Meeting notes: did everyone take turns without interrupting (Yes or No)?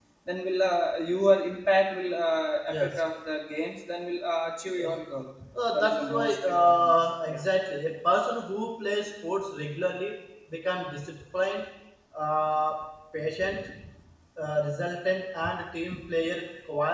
No